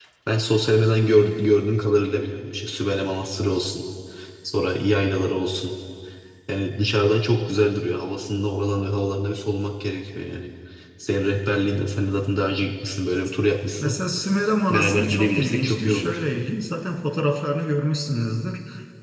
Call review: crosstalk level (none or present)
present